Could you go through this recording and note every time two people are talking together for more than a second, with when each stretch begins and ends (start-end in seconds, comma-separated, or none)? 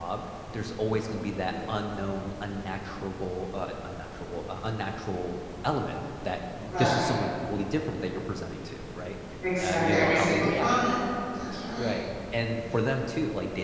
9.6-10.9